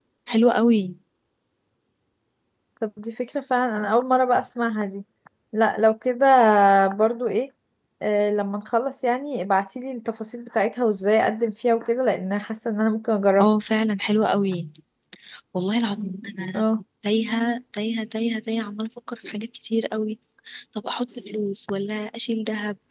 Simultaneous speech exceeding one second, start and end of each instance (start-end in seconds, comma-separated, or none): none